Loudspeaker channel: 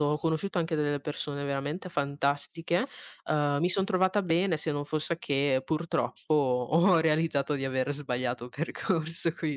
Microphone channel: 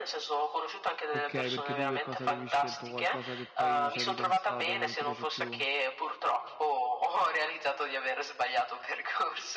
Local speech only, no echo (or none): Okay, perché tu che cosa avevi scelto? Qualcosa che poi ci hai ripensato, non ti piace più?